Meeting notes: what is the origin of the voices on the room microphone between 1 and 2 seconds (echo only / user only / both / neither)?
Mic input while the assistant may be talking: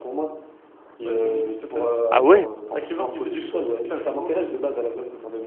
echo only